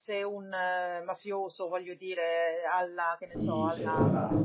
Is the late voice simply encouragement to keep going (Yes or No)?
No